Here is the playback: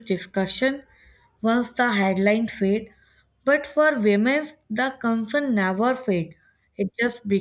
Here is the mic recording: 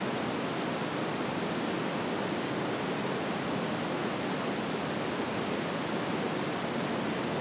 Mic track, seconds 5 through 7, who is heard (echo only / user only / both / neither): neither